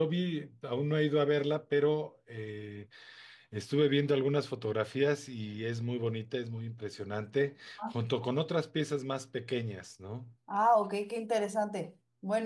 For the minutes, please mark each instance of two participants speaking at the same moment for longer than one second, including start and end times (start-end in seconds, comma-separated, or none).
none